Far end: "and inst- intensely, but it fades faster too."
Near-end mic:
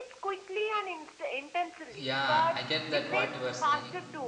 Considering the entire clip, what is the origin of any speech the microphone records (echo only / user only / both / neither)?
both